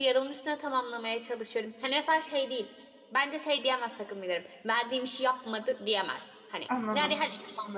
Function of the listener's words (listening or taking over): listening